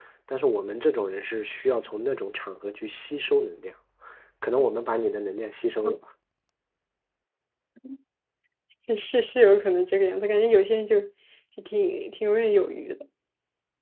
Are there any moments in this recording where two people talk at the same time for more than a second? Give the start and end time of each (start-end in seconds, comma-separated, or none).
none